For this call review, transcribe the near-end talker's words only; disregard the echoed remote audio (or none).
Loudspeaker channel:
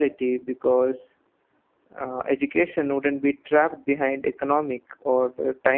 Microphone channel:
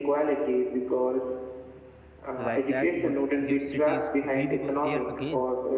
like that would give cities breathable air again